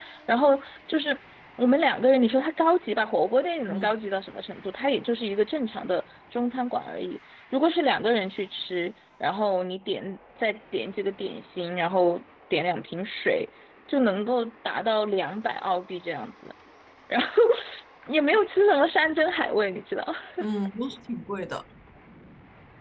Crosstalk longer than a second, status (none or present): none